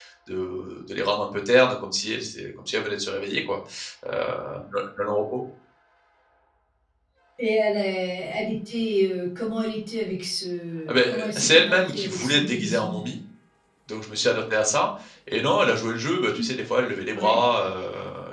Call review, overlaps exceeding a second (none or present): present